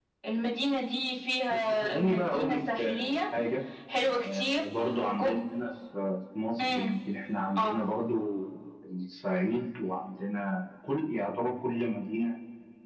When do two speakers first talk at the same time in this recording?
1.5 s

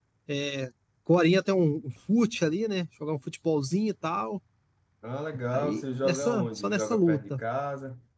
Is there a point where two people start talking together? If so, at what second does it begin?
5.5 s

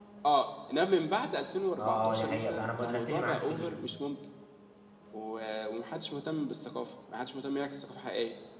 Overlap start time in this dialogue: 1.8 s

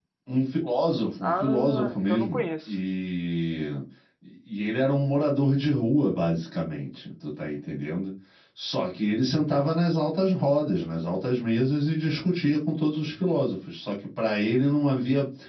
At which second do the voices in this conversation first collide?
1.2 s

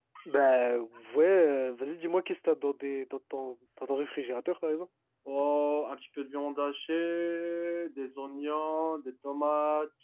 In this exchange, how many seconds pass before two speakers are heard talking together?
none

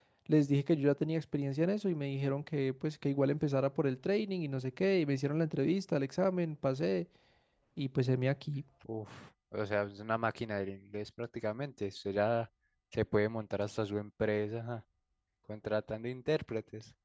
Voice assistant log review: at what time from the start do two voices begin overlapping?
none

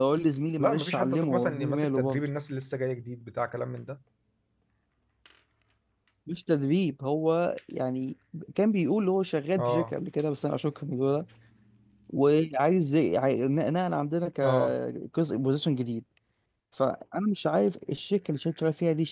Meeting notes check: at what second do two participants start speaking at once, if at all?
0.6 s

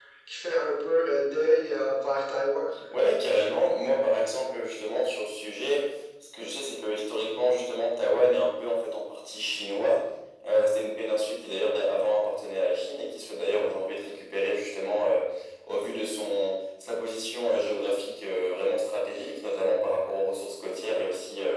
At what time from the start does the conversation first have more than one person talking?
none

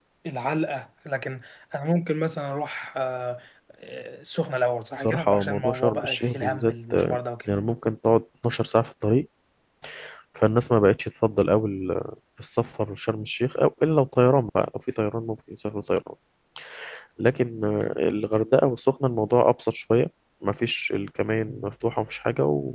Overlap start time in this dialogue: 5.0 s

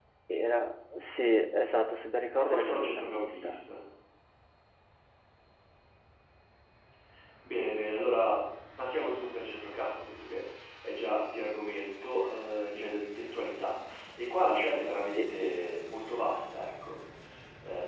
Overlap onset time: 2.4 s

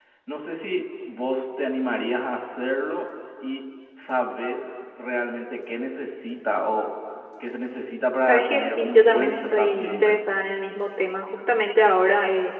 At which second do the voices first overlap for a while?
8.2 s

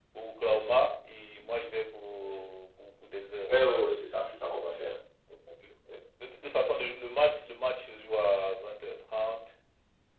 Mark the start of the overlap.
none

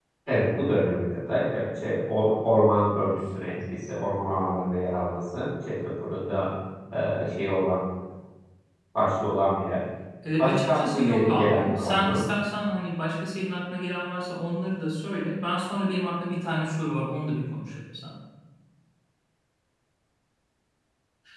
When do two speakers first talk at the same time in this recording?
10.4 s

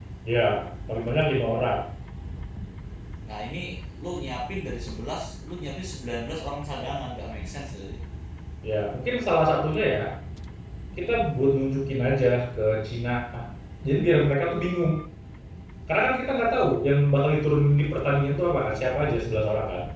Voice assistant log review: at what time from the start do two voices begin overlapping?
none

